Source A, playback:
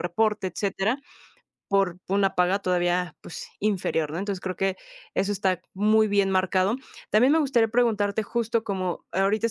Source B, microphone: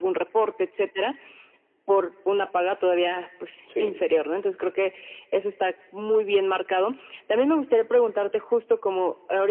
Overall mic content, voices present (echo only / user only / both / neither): both